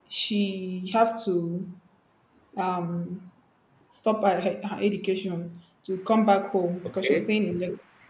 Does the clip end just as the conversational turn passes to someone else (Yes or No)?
No